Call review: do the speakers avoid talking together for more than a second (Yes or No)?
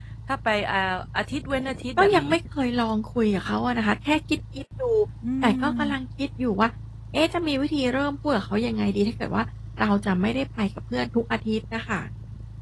Yes